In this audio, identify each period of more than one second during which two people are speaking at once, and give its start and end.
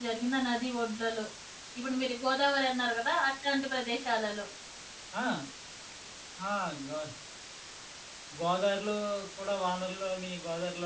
none

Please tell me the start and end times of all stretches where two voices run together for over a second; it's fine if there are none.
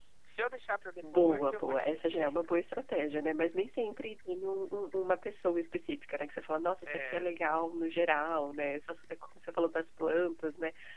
1.0-2.3

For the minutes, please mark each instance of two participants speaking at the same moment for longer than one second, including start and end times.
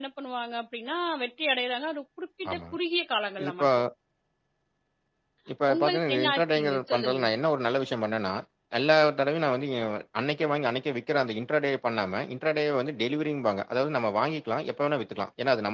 5.7-7.2

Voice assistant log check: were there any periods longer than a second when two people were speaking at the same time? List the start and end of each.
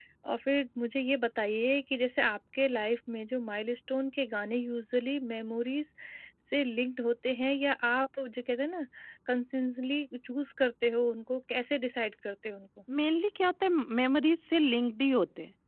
none

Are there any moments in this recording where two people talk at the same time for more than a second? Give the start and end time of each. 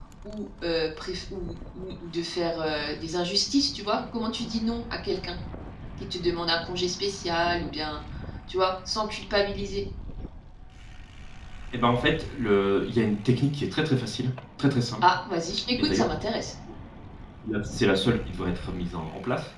none

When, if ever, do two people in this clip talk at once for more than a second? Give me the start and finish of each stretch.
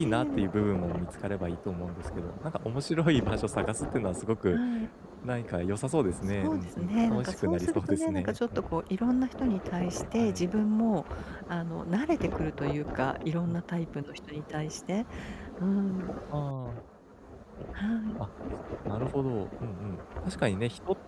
6.4-8.8

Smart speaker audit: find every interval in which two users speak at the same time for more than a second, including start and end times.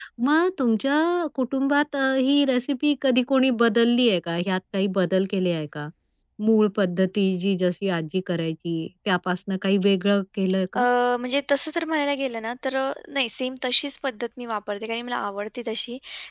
none

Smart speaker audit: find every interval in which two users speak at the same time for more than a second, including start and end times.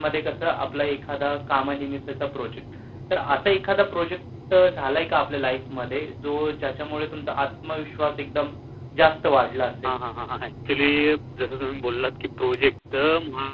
none

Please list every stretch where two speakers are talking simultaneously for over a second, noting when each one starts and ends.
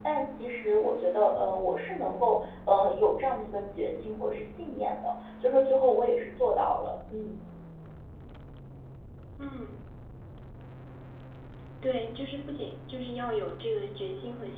none

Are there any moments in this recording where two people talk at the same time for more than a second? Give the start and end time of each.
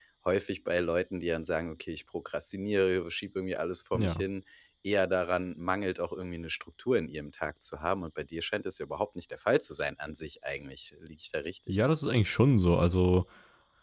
none

